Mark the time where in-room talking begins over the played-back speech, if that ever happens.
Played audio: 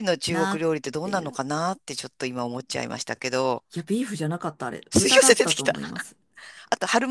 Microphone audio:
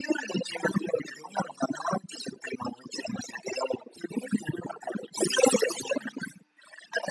none

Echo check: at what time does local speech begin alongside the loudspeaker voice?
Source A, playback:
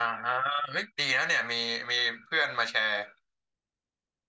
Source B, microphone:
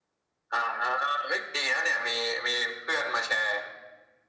none

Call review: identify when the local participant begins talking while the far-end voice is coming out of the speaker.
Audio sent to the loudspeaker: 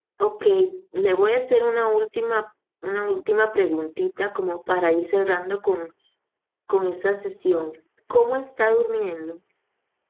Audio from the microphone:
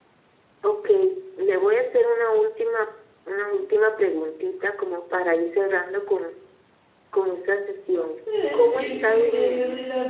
8.2 s

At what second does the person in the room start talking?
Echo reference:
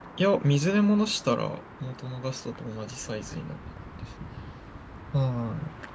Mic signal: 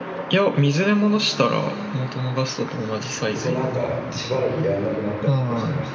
3.3 s

